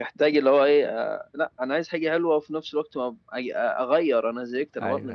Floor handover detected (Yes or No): Yes